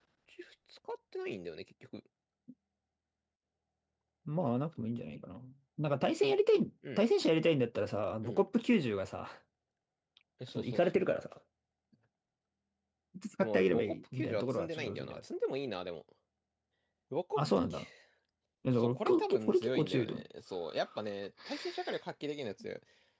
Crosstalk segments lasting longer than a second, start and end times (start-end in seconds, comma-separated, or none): 13.4-15.2, 18.8-20.2